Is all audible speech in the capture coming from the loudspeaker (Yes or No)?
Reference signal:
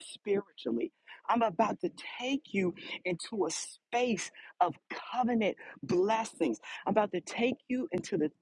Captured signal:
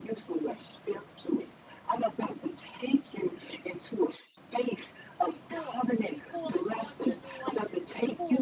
No